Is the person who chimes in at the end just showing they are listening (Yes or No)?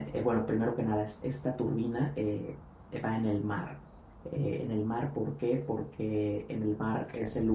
Yes